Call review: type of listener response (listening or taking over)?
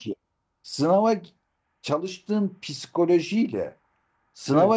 listening